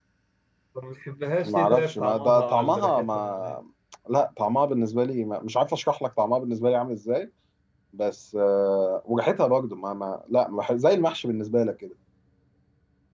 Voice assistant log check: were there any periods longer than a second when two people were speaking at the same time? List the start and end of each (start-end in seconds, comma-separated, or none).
1.4-3.6